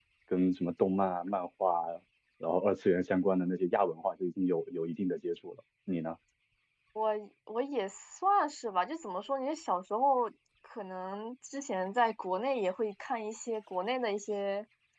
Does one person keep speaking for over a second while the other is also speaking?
No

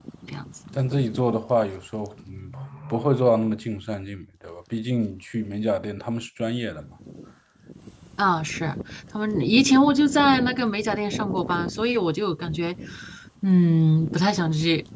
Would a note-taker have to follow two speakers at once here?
No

